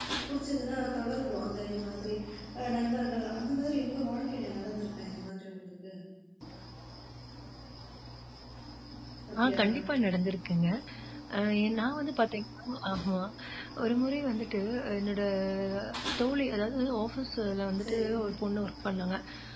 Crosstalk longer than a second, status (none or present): none